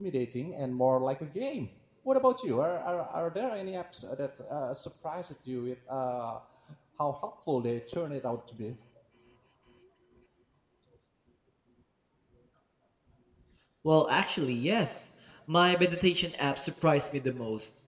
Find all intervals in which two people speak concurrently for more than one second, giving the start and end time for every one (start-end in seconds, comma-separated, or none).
none